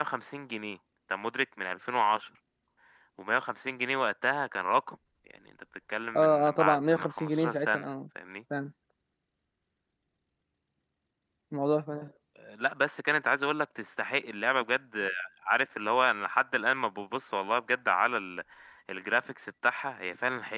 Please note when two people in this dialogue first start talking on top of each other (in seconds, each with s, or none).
6.1 s